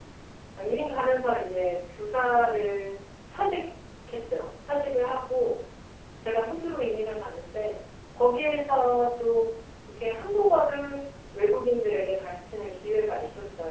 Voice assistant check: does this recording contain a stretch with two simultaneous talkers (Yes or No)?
No